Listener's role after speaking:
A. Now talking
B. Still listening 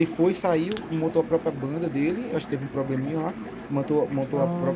B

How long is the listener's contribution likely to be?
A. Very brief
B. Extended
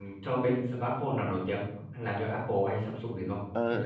B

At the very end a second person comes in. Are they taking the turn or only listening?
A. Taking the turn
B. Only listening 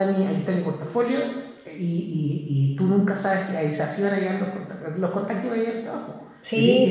A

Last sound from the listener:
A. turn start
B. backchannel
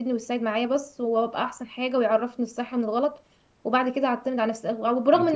B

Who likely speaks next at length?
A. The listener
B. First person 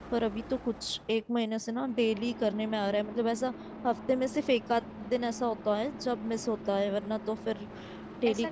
A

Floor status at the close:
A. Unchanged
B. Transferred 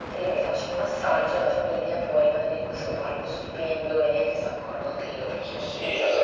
B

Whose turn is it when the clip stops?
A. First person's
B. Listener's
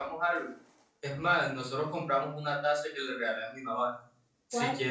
A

